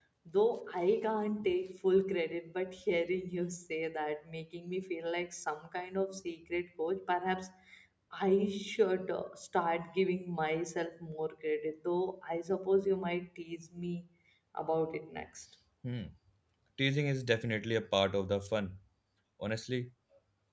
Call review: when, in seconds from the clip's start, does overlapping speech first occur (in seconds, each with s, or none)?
none